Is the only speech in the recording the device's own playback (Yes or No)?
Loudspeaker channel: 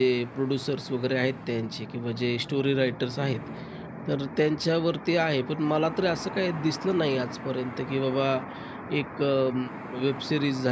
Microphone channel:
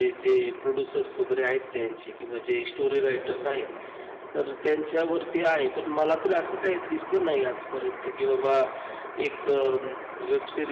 Yes